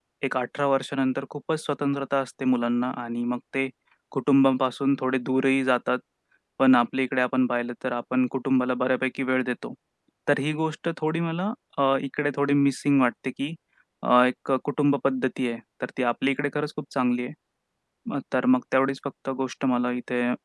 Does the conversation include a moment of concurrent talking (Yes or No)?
No